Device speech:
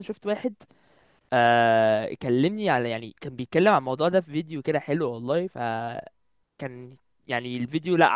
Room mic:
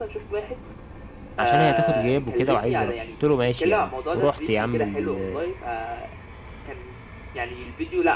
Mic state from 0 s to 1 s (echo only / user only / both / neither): echo only